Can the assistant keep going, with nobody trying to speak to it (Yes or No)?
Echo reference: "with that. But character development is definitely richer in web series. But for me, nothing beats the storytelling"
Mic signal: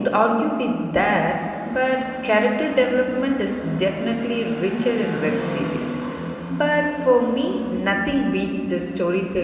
Yes